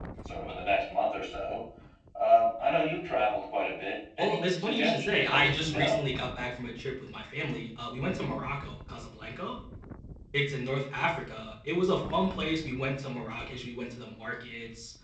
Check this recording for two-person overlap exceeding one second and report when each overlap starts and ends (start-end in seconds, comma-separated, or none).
4.2-6.0